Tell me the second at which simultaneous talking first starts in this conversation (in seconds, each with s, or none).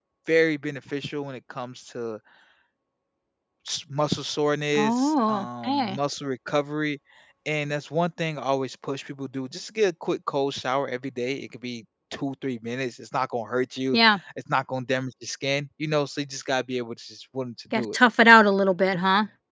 4.8 s